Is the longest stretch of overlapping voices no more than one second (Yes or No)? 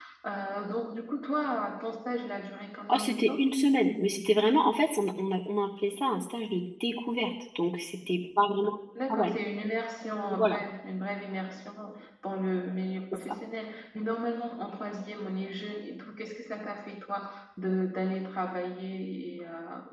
Yes